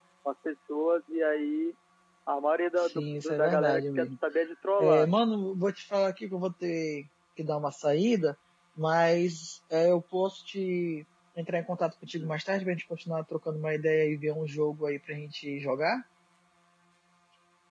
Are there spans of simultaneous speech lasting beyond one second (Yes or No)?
Yes